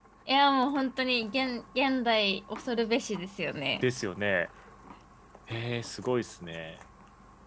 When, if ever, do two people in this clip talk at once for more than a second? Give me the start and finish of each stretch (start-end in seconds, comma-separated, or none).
none